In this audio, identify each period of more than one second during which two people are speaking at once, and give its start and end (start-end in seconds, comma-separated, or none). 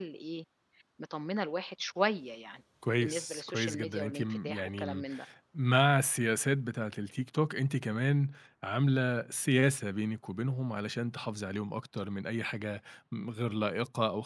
3.0-5.0